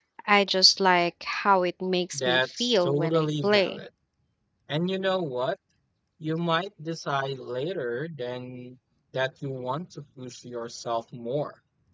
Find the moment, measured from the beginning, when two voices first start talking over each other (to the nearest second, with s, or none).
2 s